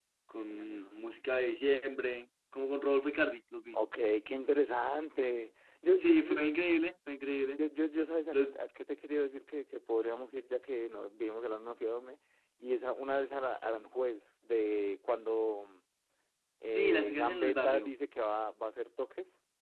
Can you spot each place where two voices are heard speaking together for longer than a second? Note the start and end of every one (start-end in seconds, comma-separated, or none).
16.6-17.9